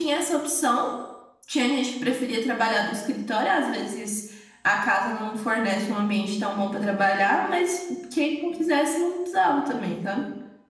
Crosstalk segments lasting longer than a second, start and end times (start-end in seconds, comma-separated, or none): none